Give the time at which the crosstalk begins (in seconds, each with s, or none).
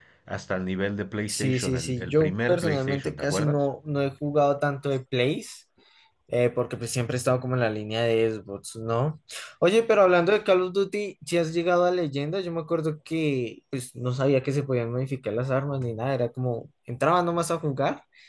1.3 s